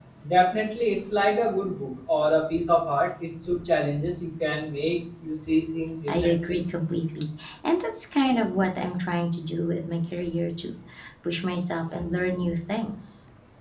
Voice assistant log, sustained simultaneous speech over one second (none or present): none